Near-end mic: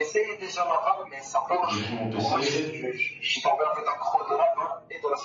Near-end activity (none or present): present